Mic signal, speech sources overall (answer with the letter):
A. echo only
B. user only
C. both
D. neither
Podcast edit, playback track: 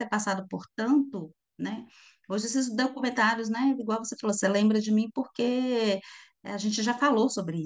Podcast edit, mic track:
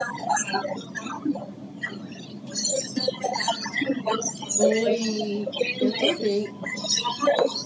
C